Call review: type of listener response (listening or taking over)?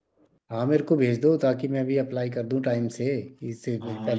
taking over